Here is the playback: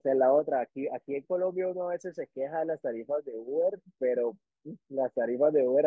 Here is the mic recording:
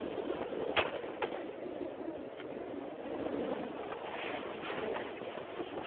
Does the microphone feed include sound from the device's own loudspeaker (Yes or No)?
No